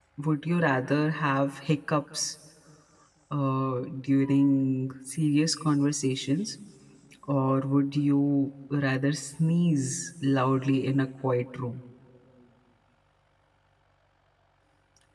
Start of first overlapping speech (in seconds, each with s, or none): none